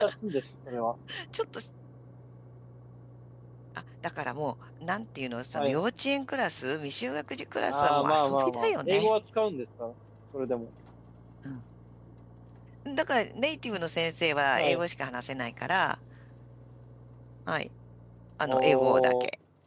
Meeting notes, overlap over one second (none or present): present